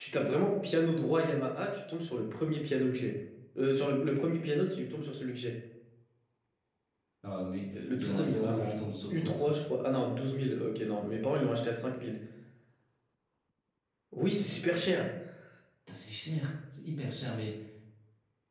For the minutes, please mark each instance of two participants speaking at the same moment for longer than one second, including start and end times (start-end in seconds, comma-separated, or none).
8.0-9.6